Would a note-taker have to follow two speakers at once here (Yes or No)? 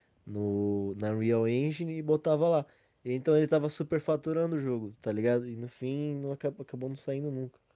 No